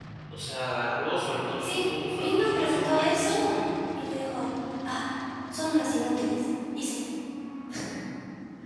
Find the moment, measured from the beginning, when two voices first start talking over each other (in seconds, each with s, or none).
1.6 s